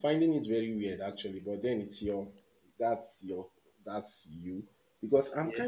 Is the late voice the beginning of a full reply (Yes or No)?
No